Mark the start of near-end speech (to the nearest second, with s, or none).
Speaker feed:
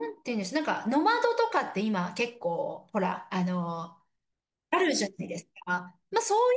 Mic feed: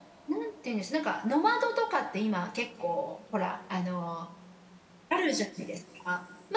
none